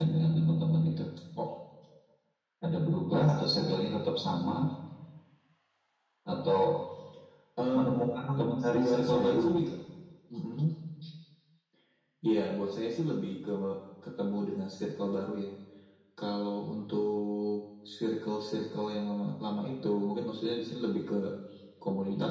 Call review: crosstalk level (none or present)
present